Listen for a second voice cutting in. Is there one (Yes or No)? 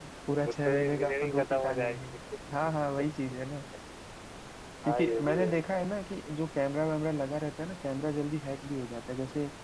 Yes